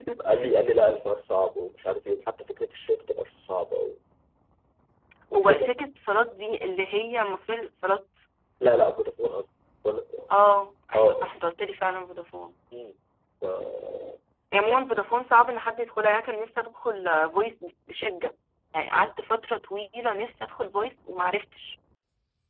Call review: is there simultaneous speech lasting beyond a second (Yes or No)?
No